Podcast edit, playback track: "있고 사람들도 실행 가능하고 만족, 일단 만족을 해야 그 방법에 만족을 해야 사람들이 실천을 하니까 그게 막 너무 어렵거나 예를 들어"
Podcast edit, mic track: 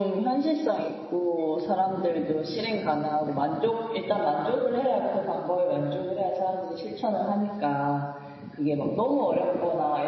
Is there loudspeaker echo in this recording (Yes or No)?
Yes